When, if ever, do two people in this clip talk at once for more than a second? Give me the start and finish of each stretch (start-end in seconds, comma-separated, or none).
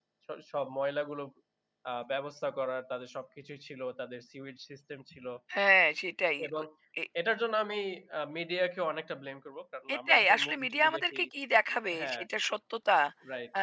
9.9-11.2